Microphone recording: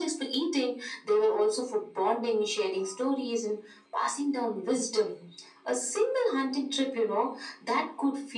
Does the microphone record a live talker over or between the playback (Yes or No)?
No